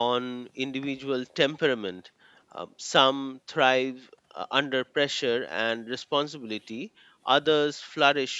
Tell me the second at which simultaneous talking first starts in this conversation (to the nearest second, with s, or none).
none